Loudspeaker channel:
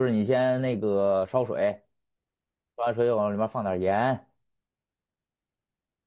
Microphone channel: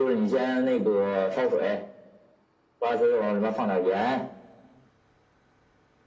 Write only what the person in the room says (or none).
none